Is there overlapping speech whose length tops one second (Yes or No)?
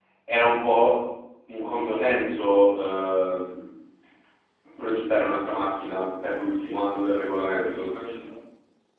Yes